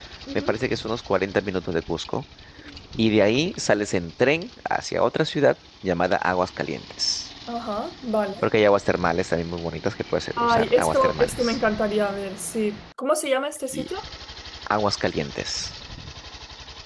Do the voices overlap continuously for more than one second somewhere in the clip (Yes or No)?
Yes